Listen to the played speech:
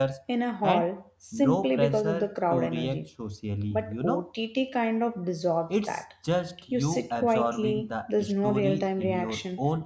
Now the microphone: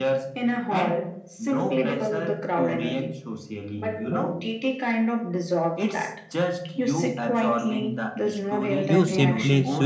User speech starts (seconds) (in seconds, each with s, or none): 8.9 s